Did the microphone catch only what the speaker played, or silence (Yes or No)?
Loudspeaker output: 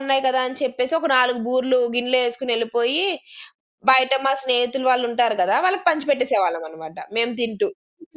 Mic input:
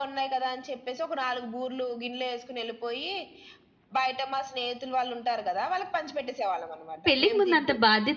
No